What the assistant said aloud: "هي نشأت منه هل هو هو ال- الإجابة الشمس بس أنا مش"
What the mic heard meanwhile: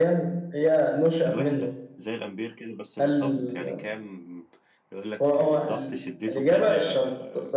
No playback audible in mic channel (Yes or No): No